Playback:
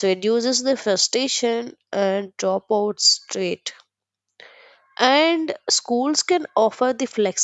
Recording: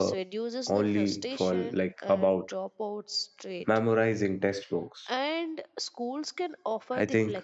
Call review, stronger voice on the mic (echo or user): user